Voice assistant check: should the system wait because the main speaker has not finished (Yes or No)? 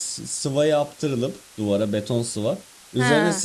Yes